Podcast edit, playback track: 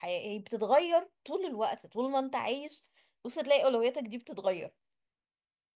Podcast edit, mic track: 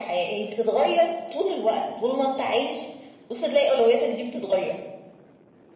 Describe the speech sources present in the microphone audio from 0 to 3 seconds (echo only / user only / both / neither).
echo only